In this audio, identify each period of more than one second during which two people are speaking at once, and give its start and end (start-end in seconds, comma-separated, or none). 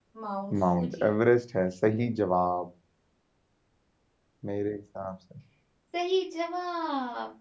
none